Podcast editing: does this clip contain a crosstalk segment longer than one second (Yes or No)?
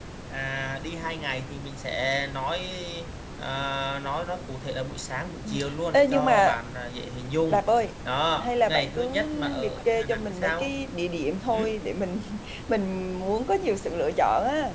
Yes